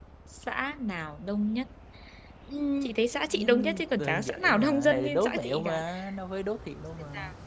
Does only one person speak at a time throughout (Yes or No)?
No